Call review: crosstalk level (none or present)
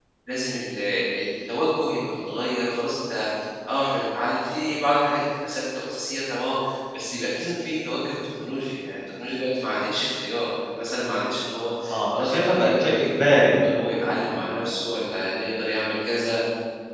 present